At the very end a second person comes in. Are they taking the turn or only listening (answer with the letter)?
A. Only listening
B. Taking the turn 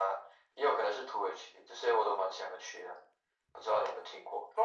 B